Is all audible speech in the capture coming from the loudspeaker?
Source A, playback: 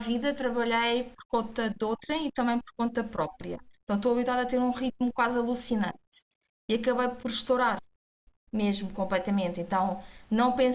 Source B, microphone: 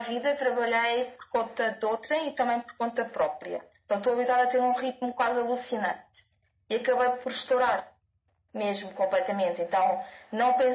Yes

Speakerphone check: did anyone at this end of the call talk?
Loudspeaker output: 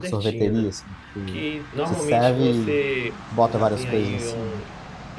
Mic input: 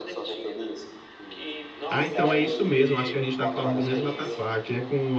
Yes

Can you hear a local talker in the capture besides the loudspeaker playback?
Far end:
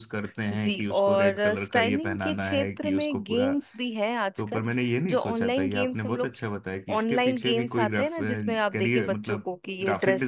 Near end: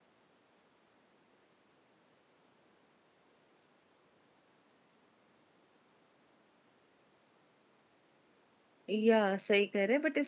Yes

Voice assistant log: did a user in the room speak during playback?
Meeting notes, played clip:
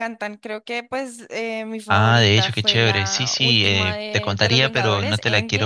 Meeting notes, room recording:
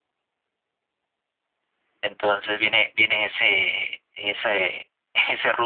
Yes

